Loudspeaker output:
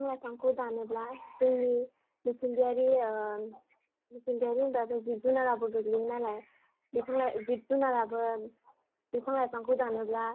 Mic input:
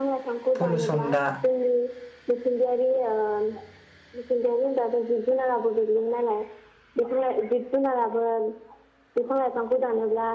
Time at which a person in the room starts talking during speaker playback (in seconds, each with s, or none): 0.6 s